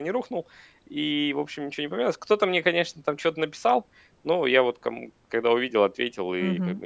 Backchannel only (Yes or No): No